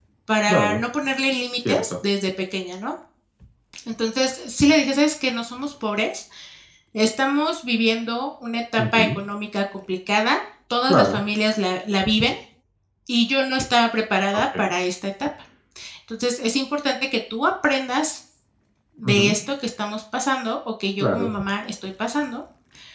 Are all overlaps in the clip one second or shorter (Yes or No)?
Yes